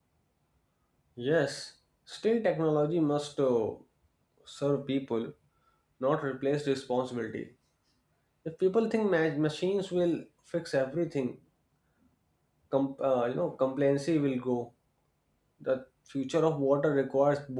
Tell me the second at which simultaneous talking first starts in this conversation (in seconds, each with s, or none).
none